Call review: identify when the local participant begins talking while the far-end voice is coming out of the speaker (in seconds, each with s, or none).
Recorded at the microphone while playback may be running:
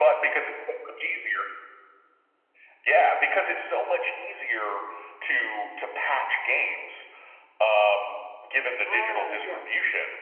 8.8 s